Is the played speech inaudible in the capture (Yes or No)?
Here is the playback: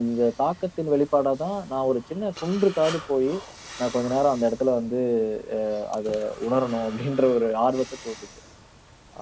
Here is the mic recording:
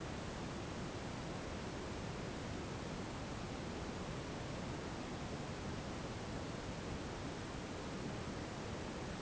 Yes